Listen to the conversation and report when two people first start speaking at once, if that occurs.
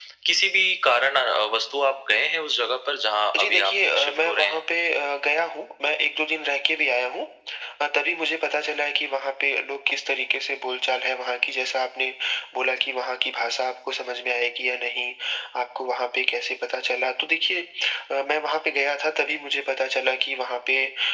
3 s

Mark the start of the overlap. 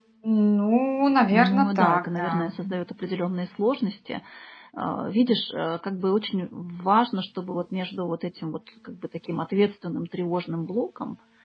1 s

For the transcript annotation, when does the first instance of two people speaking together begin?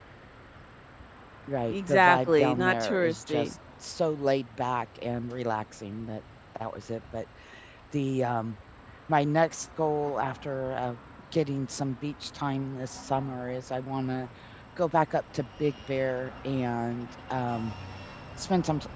2 s

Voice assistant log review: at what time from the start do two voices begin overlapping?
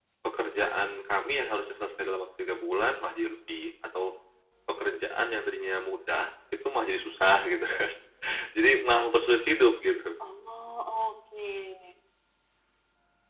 none

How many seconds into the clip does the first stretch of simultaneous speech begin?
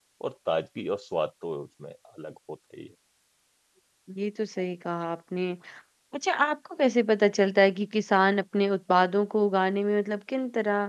none

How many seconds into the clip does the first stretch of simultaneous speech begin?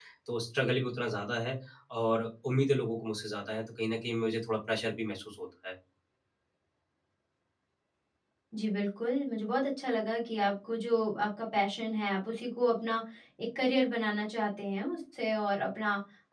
none

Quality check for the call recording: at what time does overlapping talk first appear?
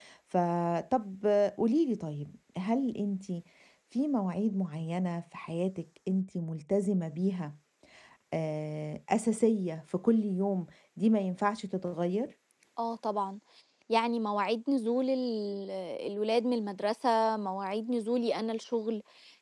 none

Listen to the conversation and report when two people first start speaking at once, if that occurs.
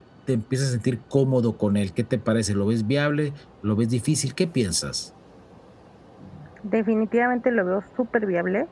none

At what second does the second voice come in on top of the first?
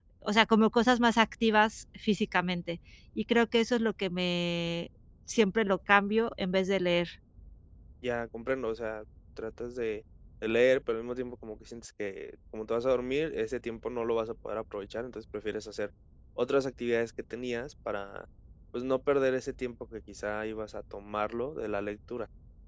none

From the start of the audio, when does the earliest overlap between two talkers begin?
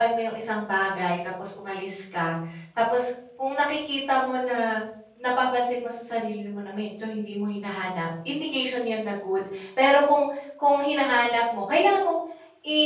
none

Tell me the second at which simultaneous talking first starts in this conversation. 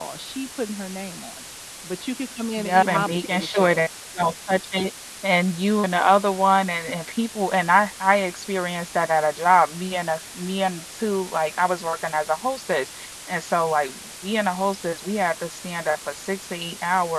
3 s

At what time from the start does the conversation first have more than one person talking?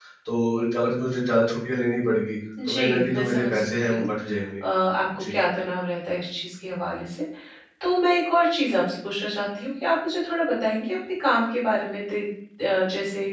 3 s

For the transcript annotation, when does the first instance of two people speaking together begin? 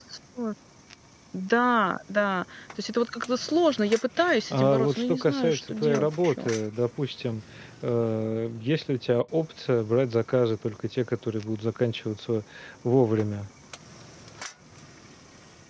5 s

